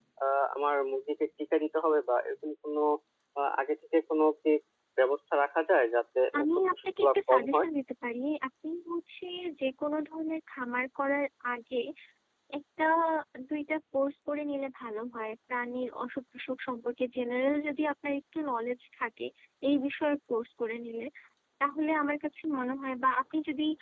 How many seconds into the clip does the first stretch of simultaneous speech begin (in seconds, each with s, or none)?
6.3 s